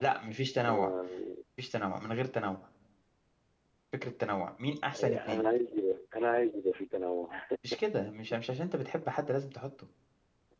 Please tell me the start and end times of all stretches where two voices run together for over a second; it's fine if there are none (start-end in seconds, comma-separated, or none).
none